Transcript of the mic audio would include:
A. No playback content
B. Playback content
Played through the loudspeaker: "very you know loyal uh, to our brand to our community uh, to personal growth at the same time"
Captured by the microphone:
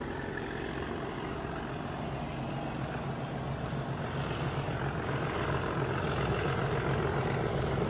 A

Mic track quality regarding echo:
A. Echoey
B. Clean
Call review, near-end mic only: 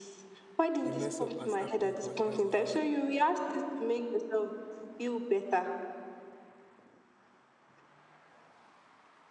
A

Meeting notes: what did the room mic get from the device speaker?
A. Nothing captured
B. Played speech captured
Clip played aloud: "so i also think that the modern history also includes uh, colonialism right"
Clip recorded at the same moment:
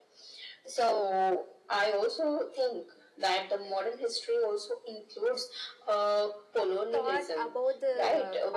B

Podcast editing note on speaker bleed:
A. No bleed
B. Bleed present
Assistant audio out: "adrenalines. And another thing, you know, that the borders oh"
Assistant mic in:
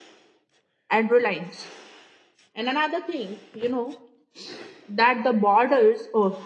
B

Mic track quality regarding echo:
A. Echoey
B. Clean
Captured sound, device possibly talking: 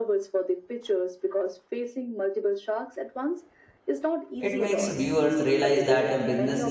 A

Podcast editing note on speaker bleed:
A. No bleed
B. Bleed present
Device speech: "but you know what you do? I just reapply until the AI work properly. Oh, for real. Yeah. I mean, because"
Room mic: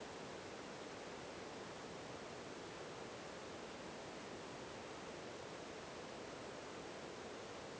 A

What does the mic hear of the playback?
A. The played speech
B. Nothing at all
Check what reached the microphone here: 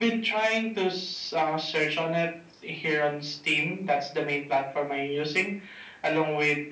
A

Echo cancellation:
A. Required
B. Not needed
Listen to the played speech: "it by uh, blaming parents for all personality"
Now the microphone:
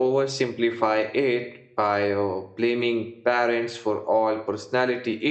A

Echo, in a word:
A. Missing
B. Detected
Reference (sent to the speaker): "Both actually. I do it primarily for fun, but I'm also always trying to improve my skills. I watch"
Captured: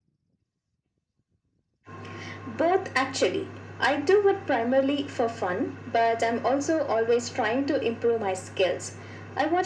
B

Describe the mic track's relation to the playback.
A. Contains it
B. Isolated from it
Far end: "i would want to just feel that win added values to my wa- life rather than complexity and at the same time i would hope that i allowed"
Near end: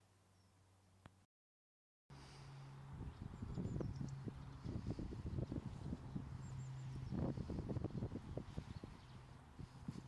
B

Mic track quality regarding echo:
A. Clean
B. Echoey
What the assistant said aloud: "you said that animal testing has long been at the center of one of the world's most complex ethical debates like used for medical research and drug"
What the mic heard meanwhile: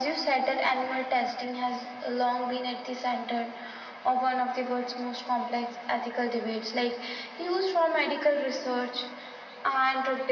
B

